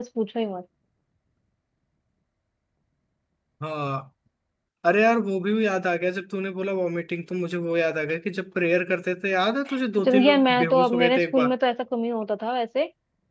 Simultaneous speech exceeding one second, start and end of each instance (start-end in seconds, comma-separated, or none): 10.0-11.5